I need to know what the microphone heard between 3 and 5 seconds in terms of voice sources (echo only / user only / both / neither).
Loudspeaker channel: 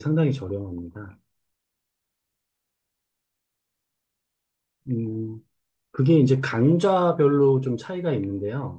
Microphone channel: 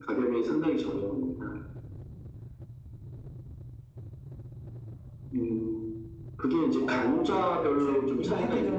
neither